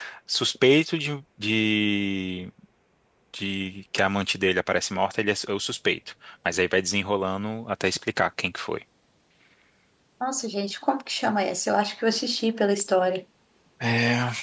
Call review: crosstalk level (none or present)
none